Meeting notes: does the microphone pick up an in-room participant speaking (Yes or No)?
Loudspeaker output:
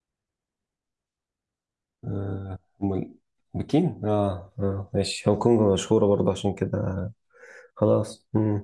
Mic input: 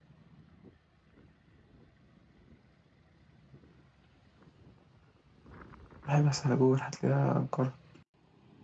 Yes